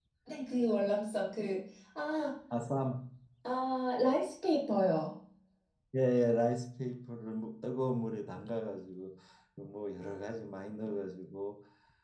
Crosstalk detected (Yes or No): No